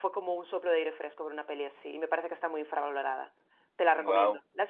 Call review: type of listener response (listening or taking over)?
taking over